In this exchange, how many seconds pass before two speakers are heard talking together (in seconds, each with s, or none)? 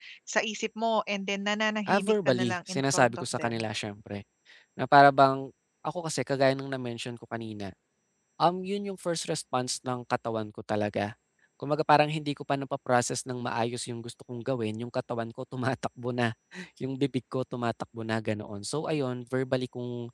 1.9 s